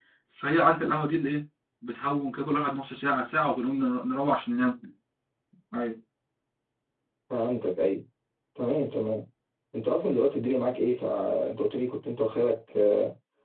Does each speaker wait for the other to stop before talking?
Yes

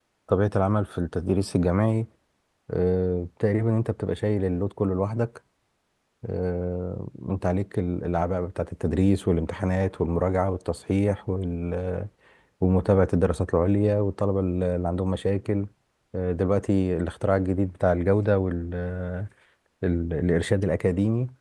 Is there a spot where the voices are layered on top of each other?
No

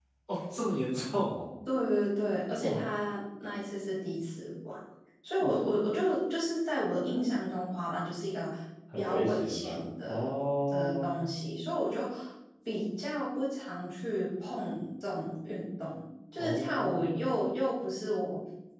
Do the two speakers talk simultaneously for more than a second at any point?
Yes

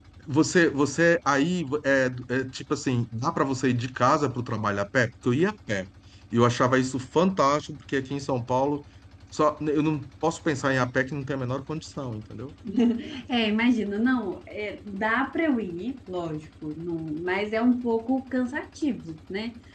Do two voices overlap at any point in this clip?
No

